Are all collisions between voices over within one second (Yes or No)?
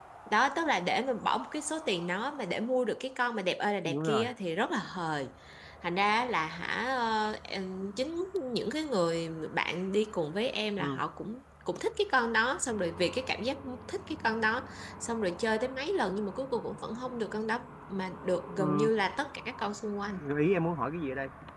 Yes